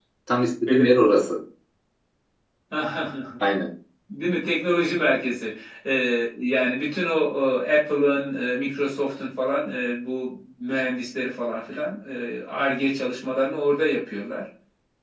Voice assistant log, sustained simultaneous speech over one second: none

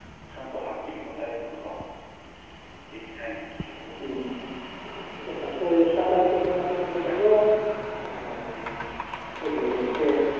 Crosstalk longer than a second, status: none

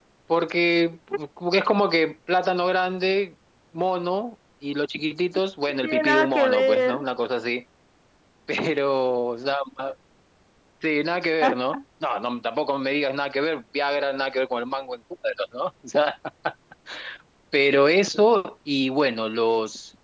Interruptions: present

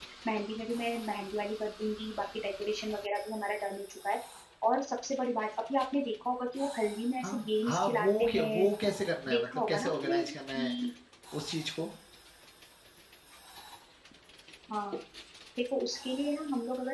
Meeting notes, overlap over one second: present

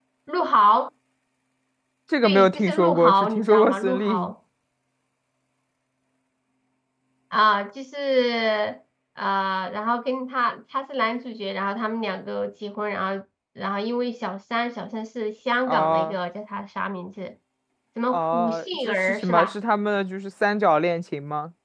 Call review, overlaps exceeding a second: present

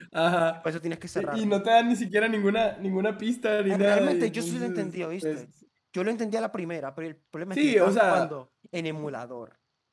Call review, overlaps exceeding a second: present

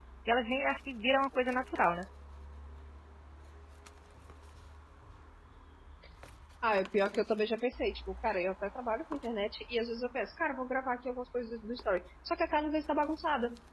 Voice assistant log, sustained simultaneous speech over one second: none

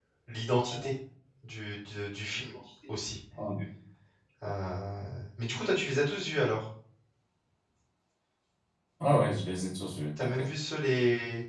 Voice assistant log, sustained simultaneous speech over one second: none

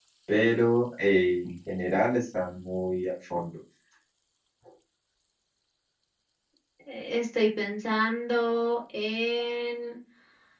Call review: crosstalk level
none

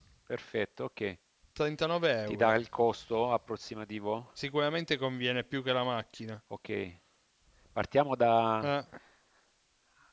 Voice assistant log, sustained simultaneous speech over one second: none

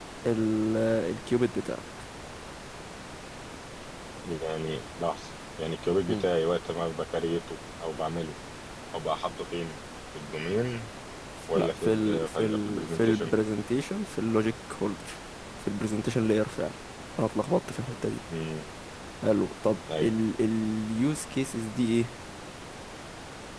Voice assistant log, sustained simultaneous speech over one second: present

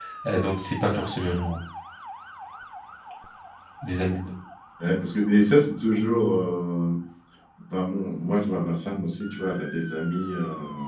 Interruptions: none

